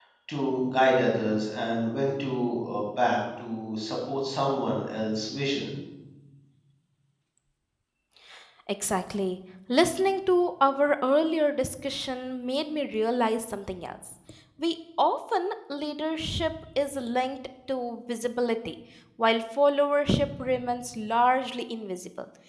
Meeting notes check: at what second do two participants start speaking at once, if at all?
none

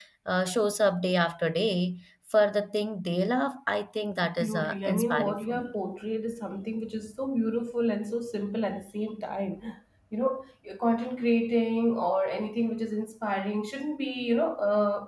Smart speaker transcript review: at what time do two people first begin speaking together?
4.4 s

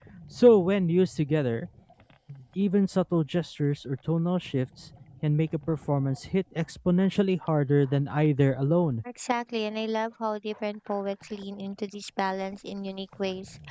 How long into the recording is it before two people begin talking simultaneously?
none

